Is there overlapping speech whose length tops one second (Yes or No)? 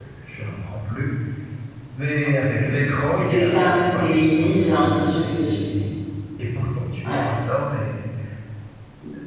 Yes